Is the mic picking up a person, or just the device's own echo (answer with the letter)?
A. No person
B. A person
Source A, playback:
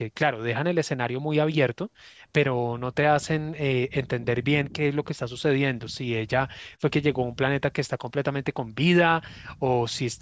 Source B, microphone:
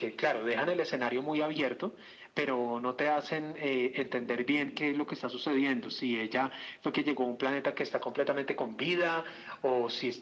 A